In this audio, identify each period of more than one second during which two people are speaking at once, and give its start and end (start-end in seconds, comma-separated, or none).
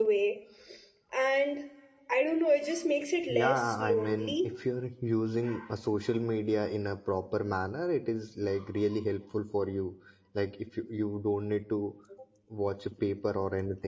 3.3-4.5